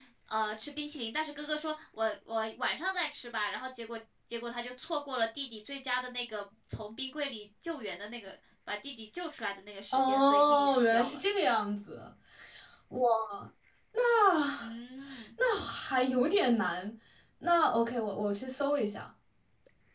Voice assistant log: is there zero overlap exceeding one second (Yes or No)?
No